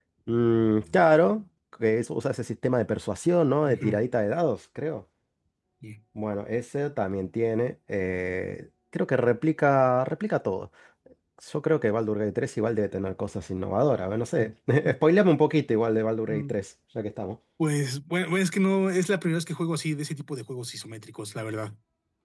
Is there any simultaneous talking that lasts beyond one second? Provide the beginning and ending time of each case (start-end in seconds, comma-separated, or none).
none